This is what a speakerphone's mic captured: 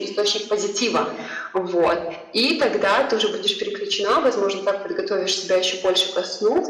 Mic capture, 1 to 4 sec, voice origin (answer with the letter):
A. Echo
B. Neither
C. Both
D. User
A